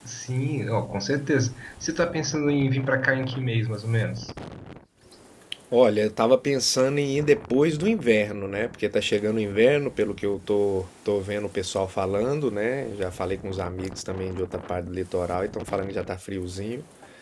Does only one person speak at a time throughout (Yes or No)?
Yes